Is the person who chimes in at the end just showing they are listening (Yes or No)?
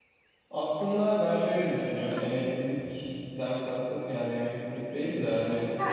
No